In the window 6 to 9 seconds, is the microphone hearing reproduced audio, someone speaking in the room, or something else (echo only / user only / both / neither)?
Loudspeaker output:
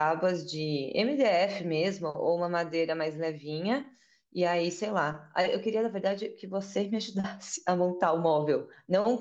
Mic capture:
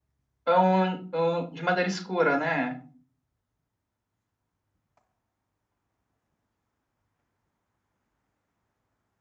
neither